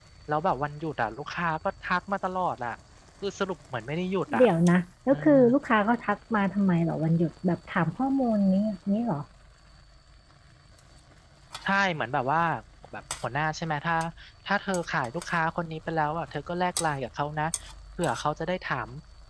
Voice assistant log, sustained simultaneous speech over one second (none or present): none